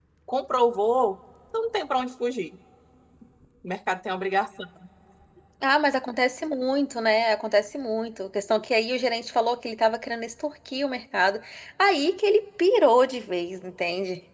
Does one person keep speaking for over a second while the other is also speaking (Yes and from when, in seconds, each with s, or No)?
No